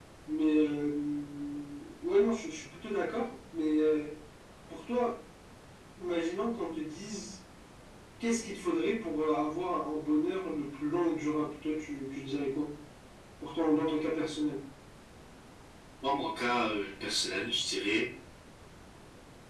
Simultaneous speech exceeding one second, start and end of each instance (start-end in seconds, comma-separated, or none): none